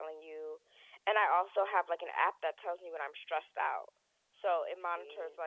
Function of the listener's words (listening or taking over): listening